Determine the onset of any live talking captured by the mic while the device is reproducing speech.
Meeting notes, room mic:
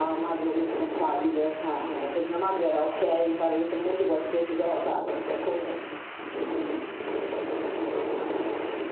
none

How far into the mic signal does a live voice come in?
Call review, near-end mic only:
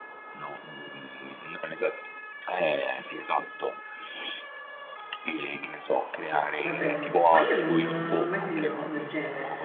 6.6 s

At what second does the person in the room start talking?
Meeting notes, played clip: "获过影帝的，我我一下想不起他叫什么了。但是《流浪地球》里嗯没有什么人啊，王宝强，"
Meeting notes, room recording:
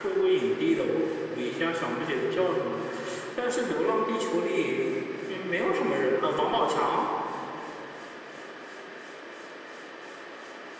none

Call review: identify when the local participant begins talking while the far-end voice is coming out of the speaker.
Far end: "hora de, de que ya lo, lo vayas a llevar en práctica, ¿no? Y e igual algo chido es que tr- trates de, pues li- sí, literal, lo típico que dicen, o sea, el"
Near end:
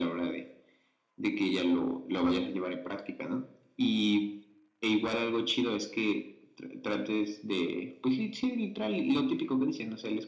none

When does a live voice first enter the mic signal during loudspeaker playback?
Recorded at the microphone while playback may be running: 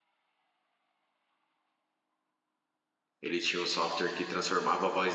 3.2 s

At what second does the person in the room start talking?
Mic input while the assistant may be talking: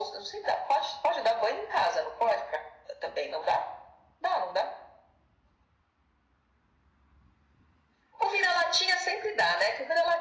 none

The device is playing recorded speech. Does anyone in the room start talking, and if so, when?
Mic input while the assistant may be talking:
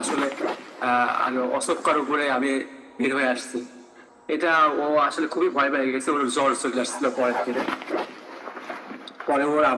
none

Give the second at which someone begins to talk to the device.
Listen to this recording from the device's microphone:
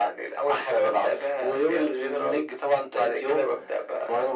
none

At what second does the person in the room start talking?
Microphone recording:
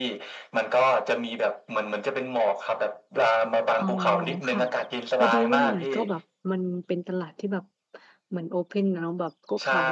3.8 s

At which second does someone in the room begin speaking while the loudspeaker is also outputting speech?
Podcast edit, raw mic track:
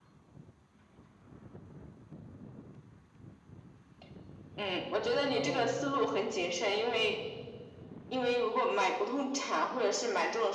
5.2 s

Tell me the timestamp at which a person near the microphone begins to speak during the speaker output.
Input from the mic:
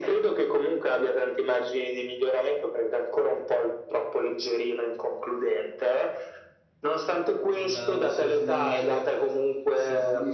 7.5 s

